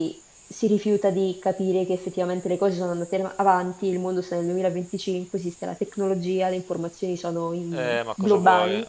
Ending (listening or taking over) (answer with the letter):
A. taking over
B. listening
A